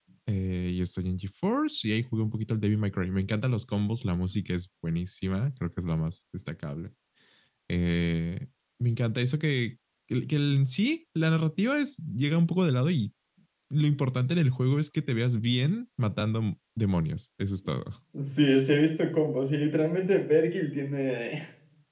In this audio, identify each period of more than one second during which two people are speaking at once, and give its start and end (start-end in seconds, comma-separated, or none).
none